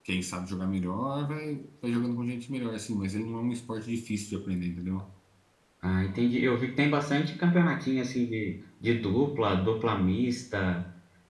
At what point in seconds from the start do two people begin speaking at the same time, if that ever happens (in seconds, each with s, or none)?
none